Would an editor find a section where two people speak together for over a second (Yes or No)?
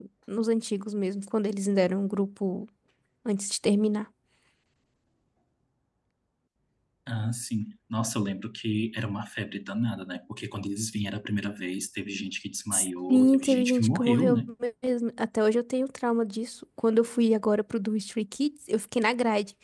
Yes